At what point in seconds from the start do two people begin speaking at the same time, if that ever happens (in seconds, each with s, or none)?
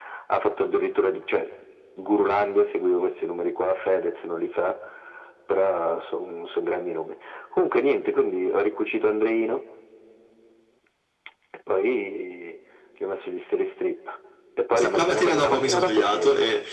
14.8 s